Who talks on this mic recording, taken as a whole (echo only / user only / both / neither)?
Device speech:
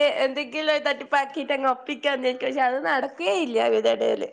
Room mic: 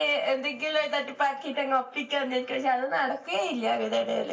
echo only